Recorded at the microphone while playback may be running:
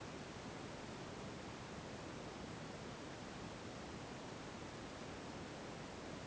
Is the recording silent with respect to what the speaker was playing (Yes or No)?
Yes